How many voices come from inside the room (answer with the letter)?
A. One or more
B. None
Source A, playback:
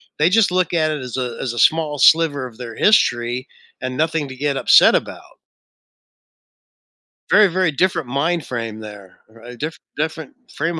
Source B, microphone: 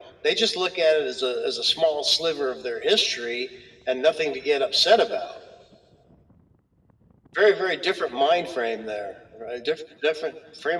B